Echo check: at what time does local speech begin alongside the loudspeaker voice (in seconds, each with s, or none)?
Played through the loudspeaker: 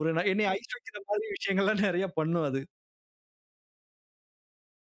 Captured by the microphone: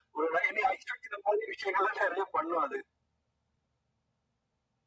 none